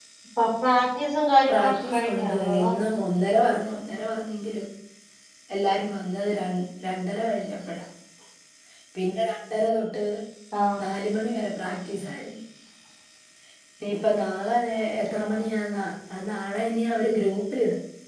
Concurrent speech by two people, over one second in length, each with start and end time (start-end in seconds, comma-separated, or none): 1.5-2.7